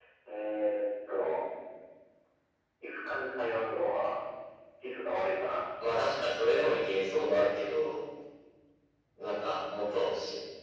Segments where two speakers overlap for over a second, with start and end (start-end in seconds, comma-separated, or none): none